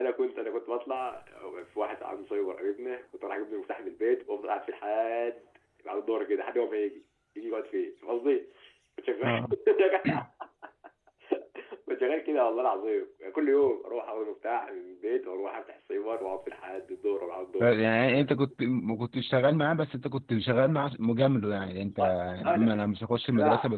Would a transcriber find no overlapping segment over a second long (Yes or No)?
Yes